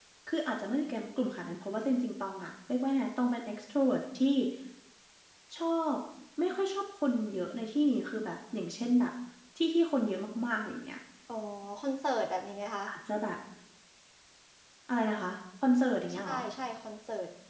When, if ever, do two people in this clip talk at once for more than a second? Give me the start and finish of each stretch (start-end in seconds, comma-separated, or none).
none